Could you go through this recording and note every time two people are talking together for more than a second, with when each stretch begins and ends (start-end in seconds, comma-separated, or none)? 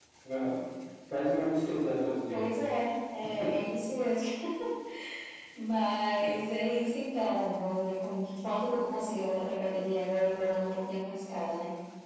none